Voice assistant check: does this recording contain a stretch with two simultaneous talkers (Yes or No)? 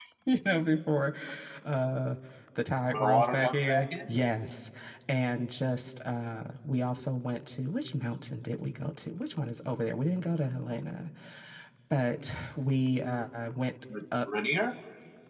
Yes